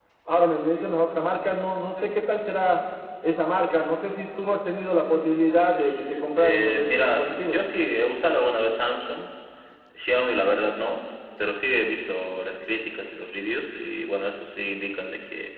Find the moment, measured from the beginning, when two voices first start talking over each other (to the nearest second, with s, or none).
6 s